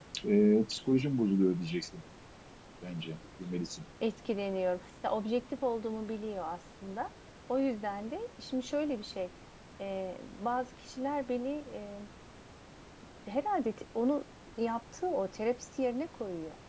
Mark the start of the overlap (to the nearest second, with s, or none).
none